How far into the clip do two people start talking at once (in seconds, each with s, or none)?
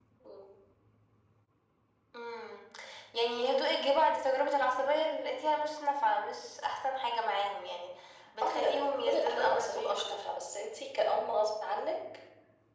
8.4 s